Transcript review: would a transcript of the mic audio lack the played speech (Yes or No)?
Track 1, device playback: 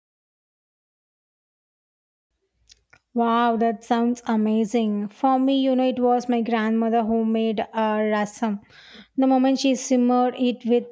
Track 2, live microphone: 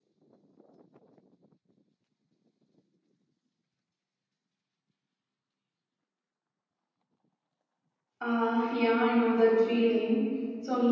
Yes